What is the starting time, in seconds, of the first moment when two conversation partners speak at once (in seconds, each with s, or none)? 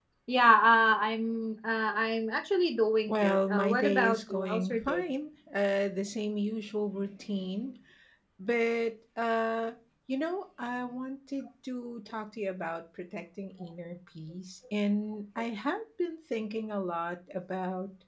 3.1 s